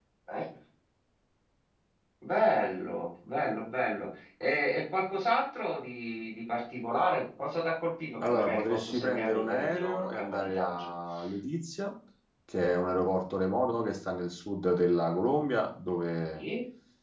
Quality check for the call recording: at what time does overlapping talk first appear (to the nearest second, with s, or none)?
8 s